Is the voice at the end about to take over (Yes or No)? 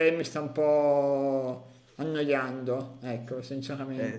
Yes